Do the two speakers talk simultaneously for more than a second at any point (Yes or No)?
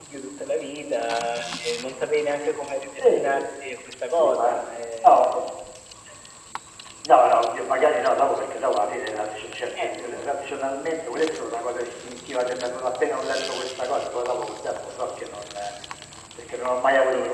No